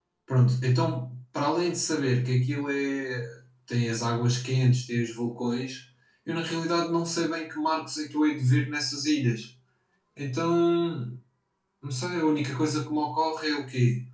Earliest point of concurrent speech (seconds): none

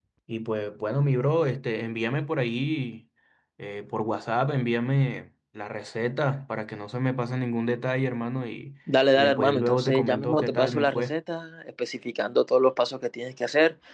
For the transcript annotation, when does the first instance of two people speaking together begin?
9 s

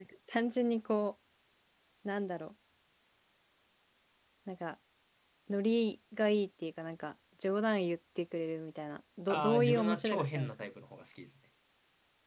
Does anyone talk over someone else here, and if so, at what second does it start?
9 s

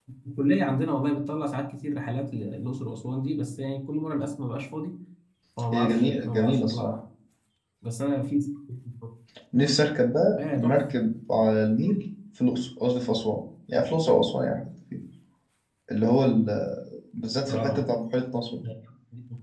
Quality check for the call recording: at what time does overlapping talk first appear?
6 s

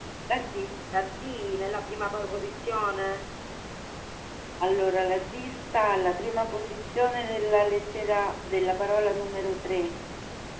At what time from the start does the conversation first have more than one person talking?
none

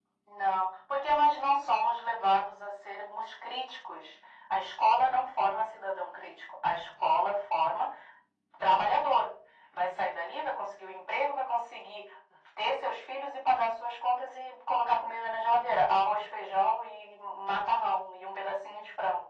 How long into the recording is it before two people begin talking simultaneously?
none

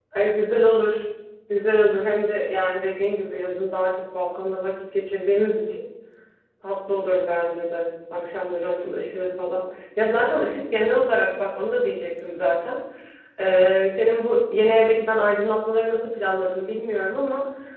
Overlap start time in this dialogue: none

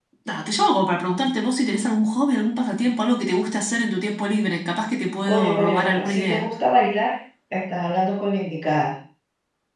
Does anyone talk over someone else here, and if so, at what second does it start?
5 s

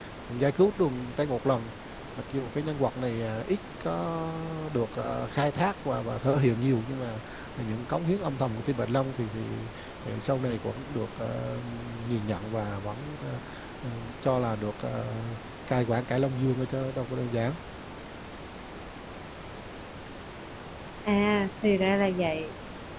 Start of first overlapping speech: none

